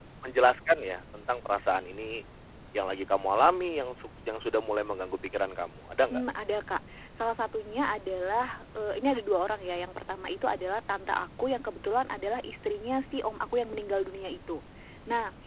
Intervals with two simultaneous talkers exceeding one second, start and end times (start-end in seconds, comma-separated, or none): none